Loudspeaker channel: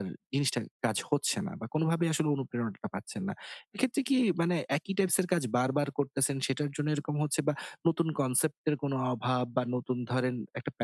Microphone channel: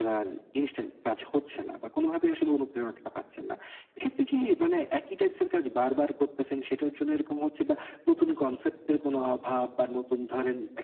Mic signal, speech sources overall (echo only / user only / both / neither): echo only